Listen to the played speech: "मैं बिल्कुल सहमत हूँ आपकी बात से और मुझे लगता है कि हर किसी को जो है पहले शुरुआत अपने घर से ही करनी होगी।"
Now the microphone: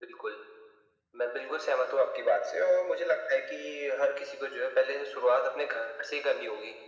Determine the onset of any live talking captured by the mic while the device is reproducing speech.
none

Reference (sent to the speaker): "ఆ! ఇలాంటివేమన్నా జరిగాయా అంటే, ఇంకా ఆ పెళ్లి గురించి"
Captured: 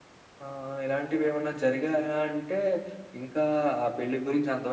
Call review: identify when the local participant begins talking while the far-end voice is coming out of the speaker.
none

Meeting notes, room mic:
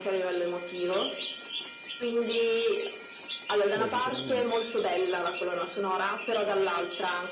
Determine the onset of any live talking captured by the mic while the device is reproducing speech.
3.8 s

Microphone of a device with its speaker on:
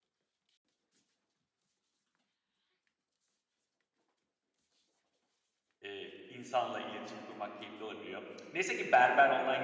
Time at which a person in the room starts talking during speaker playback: 5.8 s

